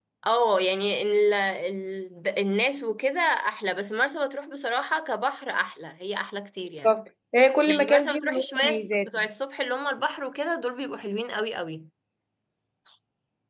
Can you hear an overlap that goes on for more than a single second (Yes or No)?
Yes